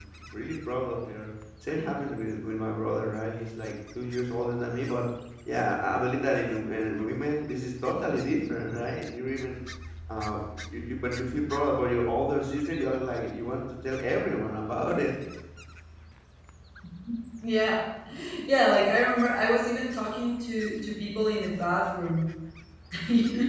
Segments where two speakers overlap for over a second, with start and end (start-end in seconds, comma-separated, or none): none